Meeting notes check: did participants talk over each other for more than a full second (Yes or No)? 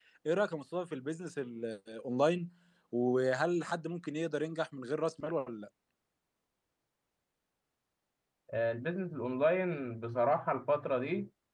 No